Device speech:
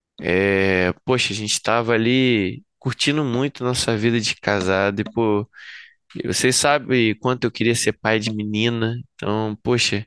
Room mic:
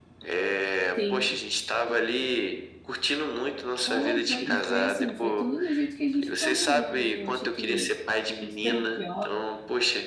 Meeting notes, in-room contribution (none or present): present